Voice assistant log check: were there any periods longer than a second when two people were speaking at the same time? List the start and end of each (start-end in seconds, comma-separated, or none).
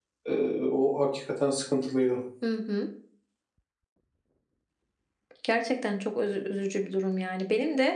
none